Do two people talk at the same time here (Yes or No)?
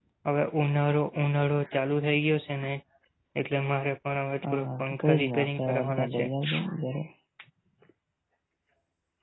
Yes